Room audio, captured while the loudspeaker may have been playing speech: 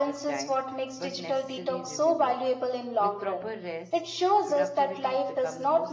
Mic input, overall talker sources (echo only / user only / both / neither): both